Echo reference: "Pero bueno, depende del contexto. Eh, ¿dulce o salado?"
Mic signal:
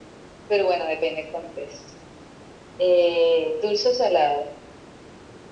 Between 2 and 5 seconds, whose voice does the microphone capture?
echo only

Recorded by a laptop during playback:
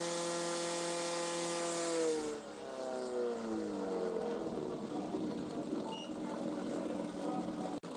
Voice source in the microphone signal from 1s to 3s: neither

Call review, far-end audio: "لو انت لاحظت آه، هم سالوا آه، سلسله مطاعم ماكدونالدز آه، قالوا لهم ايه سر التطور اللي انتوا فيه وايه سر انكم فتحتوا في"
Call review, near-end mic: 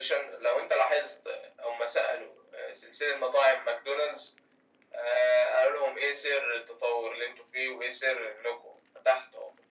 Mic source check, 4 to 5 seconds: echo only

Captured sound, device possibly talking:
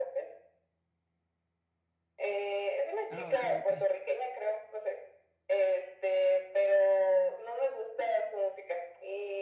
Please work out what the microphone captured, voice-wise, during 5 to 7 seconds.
echo only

